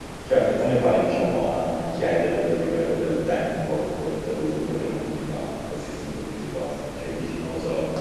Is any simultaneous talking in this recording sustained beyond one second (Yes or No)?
No